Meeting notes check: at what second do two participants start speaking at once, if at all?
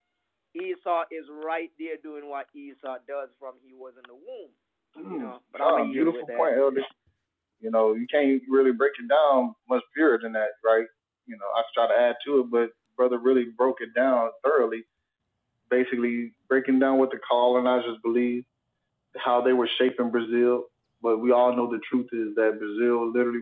5.1 s

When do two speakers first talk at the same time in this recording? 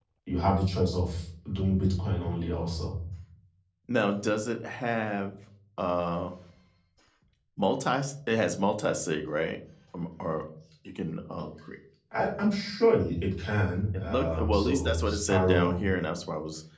13.9 s

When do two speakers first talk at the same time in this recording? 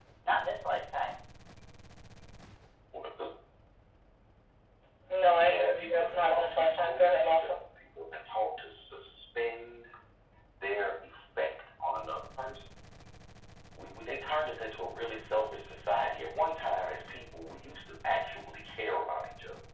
5.5 s

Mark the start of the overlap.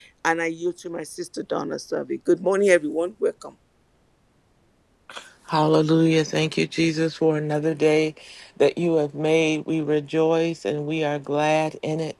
none

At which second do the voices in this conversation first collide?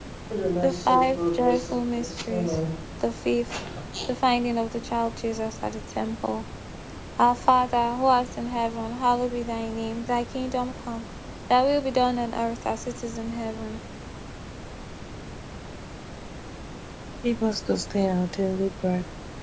0.6 s

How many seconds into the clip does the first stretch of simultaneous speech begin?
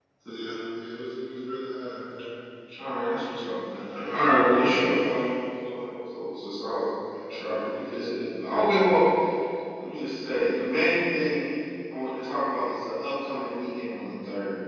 none

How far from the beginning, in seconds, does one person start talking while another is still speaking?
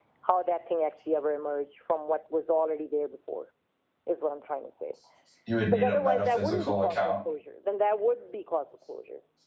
5.7 s

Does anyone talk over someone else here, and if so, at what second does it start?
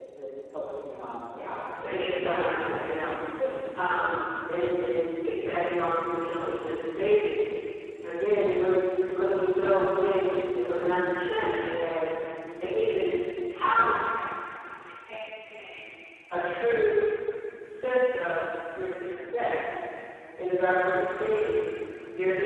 1.8 s

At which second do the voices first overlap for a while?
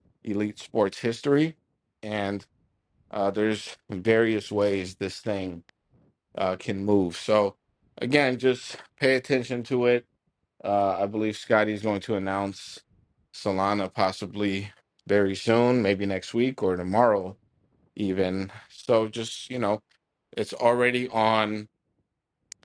none

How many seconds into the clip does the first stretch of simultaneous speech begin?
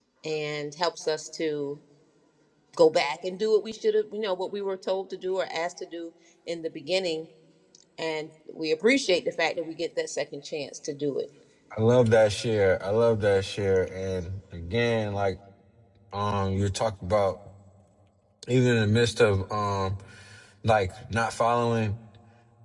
none

